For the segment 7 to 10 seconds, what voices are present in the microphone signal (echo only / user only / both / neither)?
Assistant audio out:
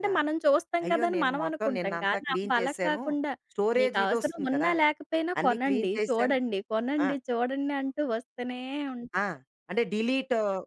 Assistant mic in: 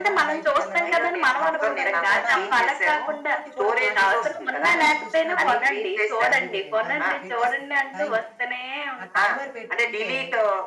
both